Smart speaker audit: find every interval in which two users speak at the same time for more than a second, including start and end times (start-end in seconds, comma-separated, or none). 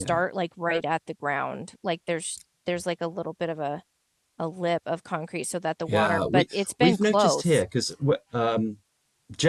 5.9-7.6